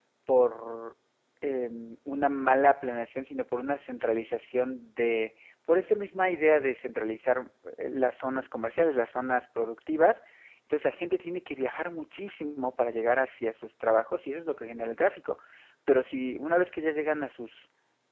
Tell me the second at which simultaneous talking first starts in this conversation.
none

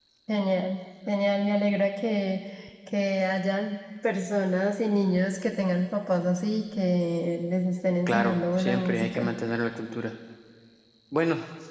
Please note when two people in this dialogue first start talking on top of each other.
8.1 s

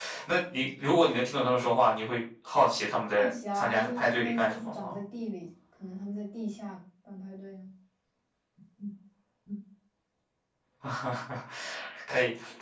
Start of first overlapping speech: 3.2 s

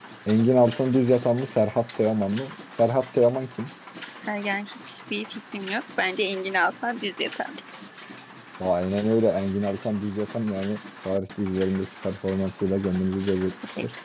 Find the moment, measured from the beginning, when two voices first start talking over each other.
none

